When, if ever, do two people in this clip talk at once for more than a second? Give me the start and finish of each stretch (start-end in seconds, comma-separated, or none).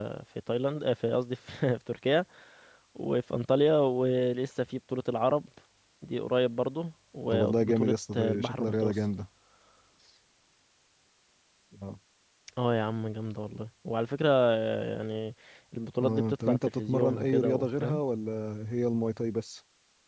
7.3-9.0, 16.0-18.0